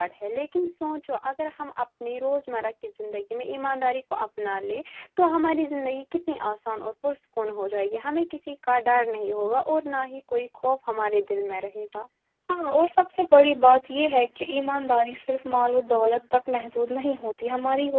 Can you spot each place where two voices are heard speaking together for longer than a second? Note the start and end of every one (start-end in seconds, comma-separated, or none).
none